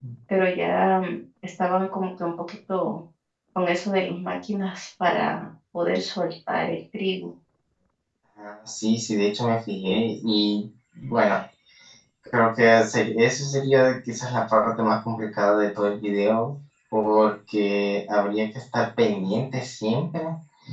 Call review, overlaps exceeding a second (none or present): none